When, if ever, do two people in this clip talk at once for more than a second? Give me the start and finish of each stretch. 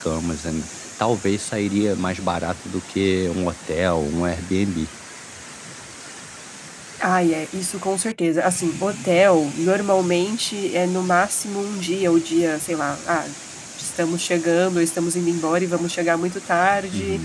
none

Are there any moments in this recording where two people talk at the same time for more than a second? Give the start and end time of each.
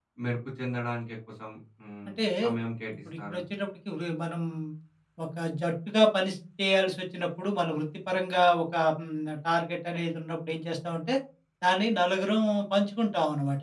none

